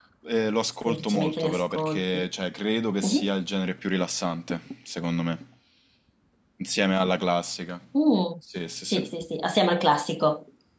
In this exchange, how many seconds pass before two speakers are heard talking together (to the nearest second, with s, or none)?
1 s